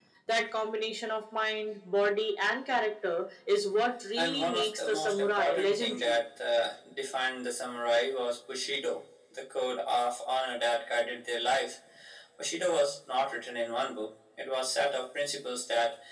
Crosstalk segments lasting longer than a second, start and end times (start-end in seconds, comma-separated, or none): 4.2-6.2